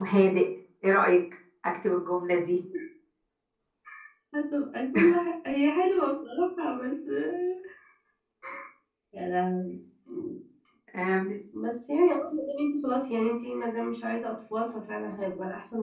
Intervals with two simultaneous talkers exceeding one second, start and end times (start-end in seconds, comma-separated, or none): none